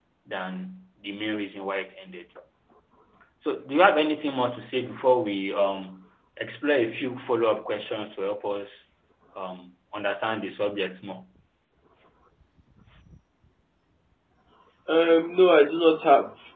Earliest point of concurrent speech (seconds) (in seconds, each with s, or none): none